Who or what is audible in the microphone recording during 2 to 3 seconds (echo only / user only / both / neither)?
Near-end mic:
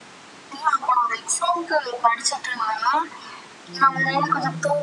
echo only